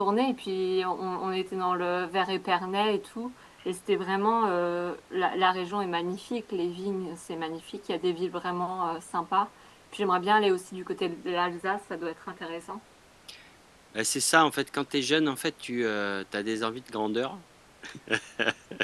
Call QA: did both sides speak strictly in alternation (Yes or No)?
Yes